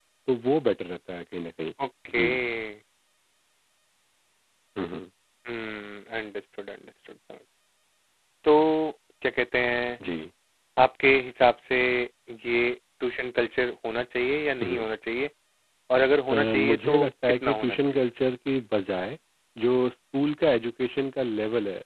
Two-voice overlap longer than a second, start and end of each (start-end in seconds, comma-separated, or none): 16.3-18.0